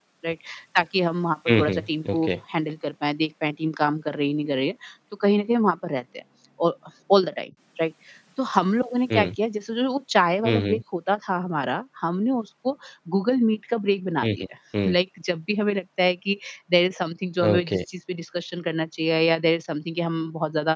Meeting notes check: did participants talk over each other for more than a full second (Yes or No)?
No